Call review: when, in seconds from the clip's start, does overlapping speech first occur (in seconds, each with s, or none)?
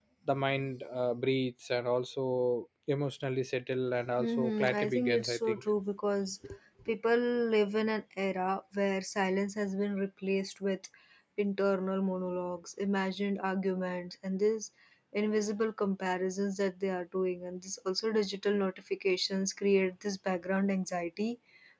4.2 s